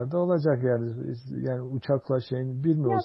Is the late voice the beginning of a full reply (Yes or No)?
Yes